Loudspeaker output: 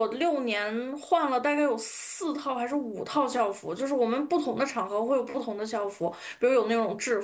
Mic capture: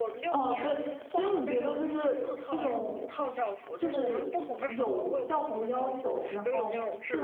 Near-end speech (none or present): present